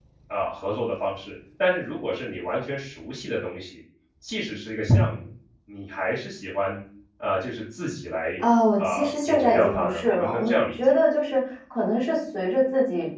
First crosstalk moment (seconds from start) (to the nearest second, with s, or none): 9 s